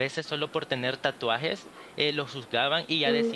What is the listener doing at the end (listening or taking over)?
listening